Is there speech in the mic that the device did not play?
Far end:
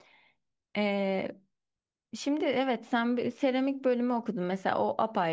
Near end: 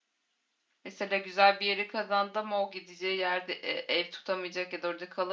Yes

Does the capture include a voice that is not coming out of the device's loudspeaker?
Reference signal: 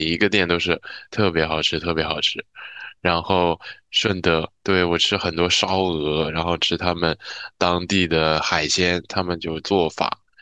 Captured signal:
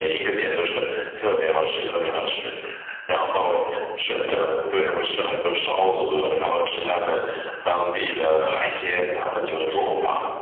No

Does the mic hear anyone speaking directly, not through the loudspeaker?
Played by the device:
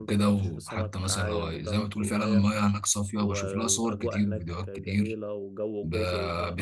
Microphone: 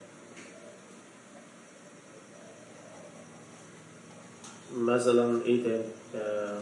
Yes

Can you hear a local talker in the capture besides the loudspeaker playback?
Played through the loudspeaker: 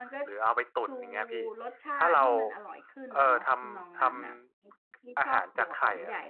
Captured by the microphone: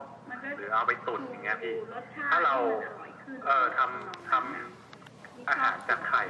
No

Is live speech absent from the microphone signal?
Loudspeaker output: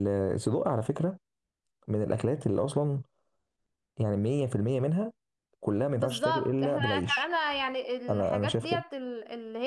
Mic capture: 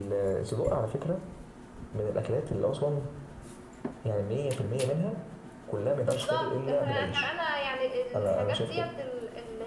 Yes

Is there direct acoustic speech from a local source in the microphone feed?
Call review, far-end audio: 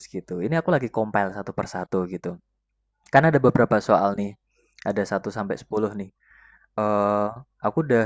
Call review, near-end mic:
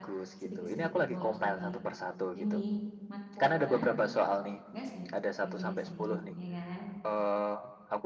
Yes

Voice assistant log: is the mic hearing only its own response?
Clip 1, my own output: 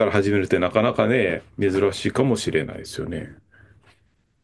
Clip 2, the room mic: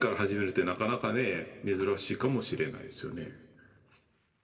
Yes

